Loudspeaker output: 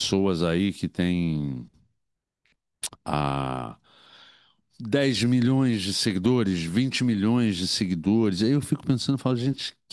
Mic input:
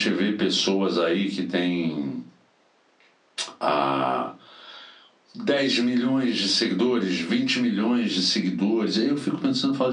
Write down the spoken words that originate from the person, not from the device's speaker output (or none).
none